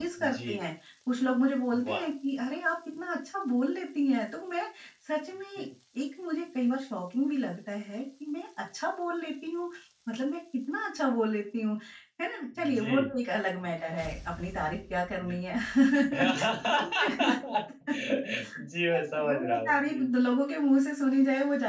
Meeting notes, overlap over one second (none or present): present